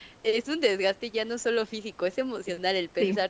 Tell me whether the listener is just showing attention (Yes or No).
Yes